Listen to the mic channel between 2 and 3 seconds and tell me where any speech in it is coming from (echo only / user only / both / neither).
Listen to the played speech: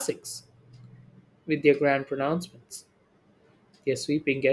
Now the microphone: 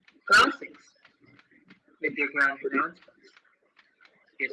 echo only